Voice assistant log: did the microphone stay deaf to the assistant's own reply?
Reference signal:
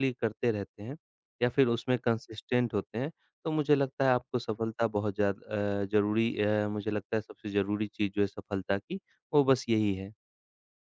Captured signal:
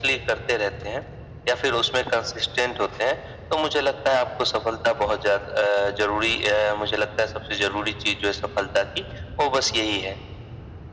No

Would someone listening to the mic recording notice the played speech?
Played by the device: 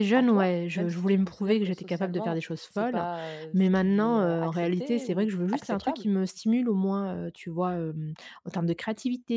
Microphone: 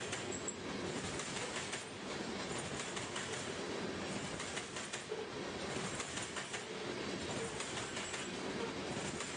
No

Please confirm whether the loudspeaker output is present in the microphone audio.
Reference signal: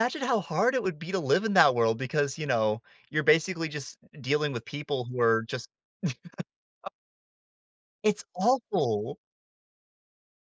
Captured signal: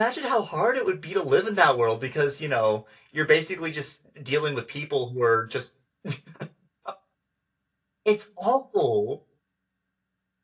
Yes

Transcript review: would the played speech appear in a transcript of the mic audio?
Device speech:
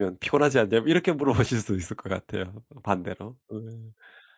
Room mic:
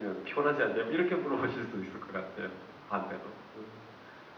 Yes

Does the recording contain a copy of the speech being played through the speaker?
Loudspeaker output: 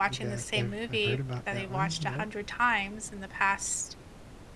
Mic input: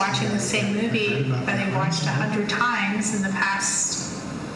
Yes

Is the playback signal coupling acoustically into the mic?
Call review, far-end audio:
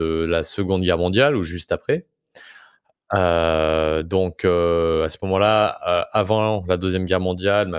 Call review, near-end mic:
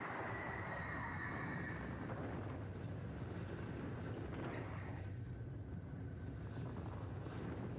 No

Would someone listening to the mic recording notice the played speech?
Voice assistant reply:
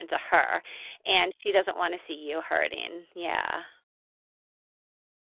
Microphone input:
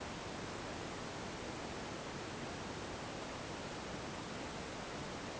No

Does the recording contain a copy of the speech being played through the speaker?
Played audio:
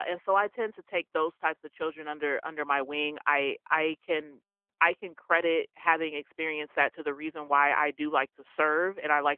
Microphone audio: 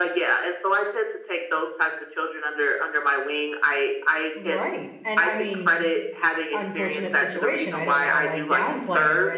Yes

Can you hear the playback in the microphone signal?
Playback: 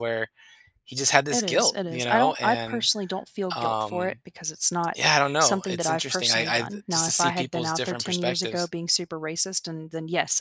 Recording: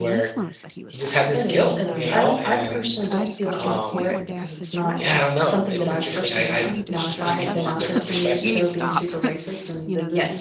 Yes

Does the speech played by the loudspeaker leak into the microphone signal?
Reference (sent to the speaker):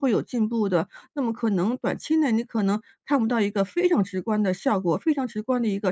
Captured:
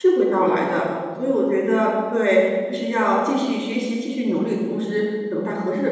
No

